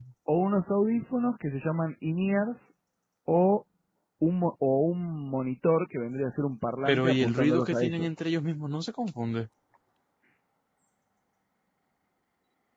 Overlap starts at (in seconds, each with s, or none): 6.8 s